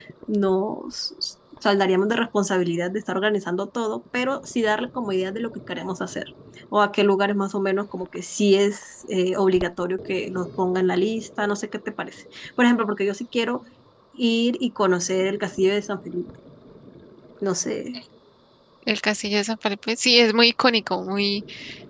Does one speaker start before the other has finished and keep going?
No

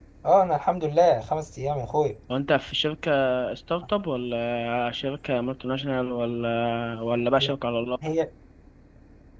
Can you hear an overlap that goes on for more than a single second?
No

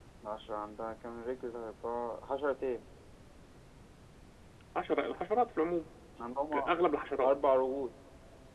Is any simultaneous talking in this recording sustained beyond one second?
No

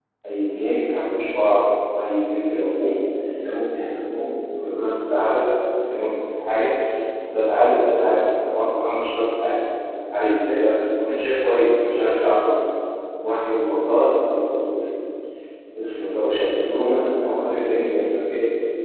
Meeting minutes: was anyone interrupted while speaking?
Yes, from 16.4 s

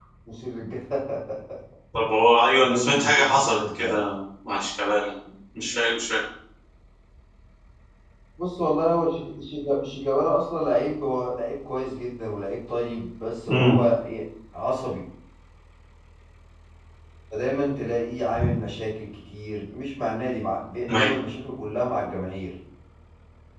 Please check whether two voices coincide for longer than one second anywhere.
Yes, from 2.6 s

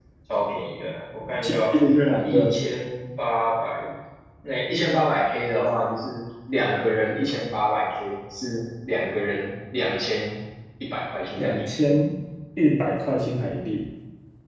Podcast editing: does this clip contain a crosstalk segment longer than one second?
No

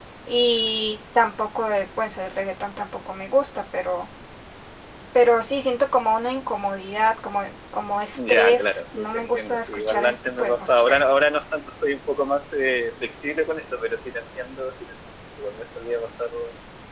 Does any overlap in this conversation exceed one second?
Yes, from 8.2 s

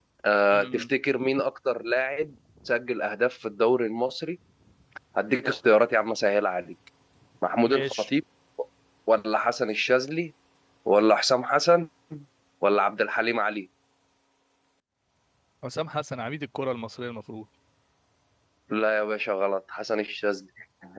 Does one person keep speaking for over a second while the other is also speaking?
No

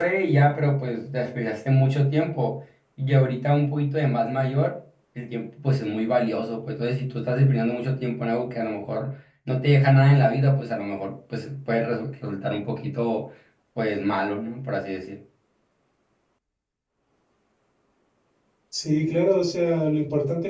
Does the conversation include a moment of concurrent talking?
No

